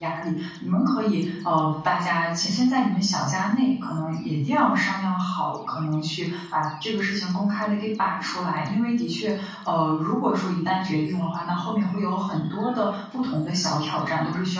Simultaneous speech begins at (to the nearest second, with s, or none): none